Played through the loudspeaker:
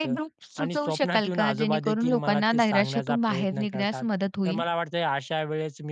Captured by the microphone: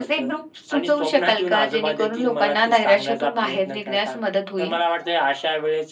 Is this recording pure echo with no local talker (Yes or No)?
Yes